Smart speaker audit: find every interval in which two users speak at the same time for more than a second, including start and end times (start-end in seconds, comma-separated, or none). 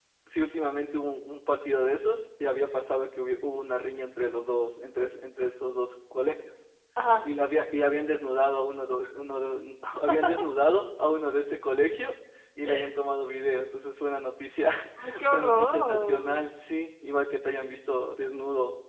15.2-16.4